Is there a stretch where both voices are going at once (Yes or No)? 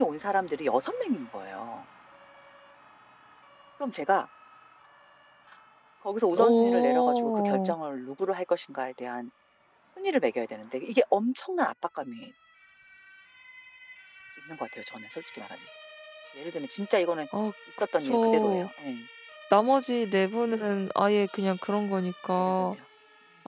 Yes